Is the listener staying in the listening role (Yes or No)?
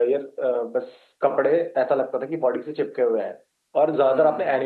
Yes